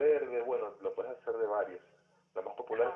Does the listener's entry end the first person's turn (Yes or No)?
No